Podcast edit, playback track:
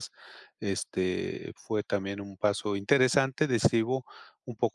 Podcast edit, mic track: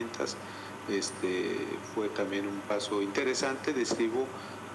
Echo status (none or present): present